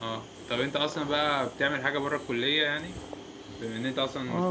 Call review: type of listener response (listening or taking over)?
taking over